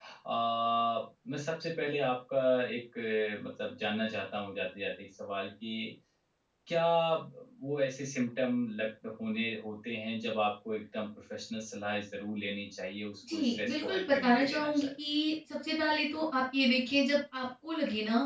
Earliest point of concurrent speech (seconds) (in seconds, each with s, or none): 13.3 s